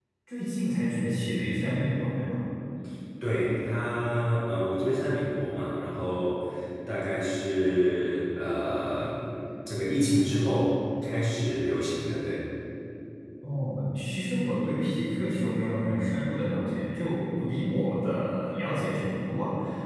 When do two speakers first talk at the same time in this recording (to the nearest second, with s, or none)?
none